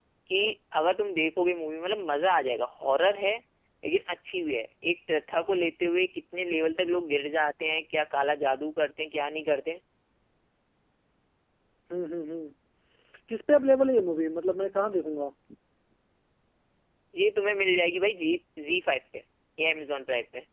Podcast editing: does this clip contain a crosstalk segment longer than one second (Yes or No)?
No